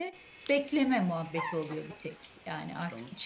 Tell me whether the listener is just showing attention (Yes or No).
Yes